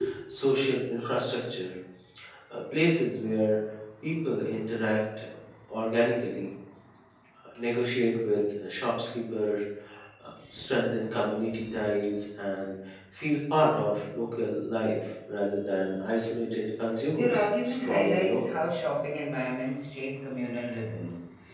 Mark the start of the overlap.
17.2 s

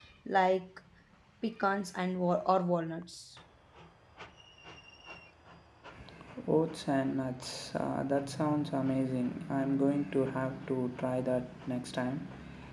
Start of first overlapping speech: none

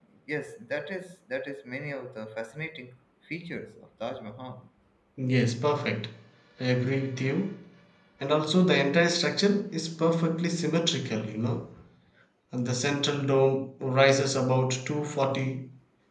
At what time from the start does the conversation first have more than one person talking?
none

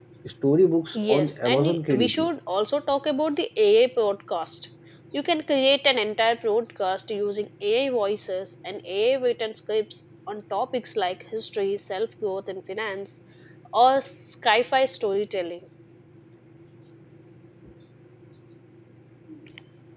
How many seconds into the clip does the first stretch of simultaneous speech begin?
0.9 s

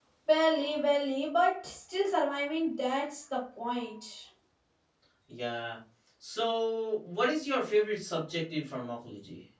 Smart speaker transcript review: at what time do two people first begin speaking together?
none

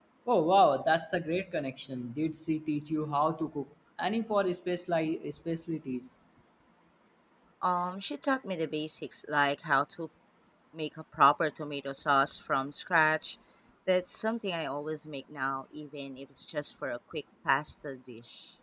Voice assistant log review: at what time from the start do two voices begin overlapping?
none

